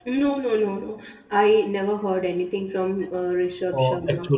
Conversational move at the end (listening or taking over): taking over